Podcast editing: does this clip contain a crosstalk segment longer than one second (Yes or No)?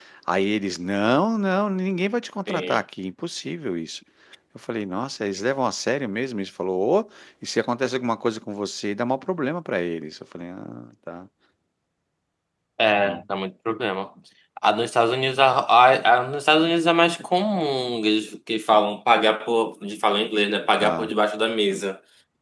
No